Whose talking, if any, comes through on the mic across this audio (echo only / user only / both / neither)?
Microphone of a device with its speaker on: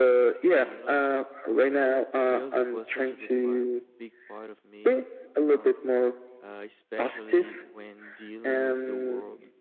both